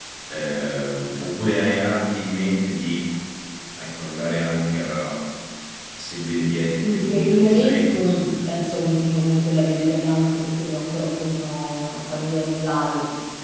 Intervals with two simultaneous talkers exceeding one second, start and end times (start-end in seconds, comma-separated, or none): 6.8-8.3